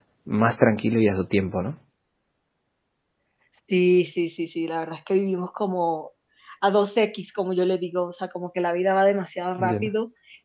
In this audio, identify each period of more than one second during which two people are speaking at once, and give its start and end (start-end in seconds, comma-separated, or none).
none